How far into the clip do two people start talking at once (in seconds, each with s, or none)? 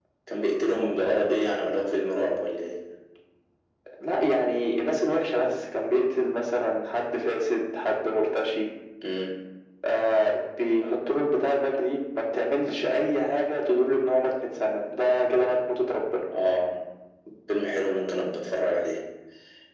none